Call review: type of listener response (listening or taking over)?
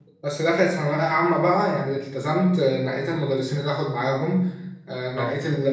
listening